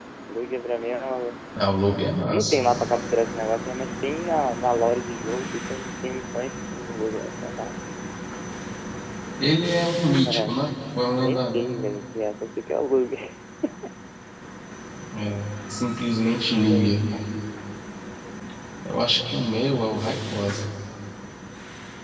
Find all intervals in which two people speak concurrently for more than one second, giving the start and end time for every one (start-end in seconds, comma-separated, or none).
none